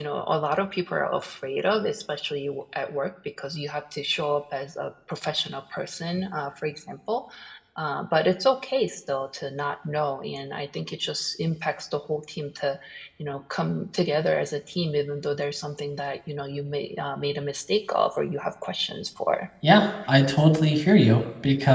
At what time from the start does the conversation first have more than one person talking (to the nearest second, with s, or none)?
none